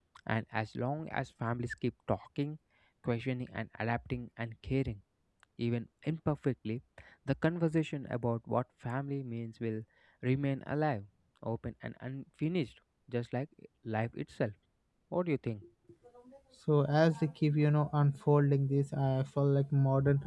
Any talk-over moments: No

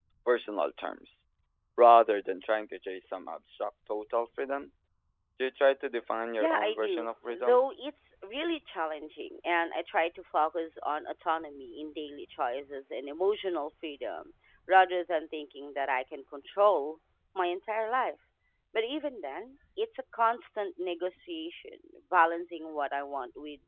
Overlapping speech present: Yes, from 6.4 s

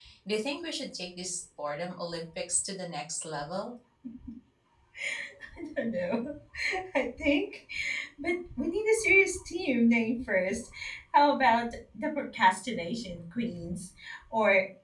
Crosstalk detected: No

